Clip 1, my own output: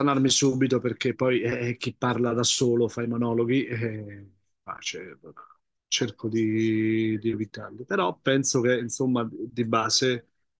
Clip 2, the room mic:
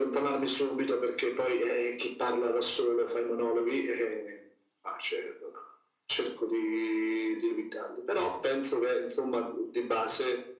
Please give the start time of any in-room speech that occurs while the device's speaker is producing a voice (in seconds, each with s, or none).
none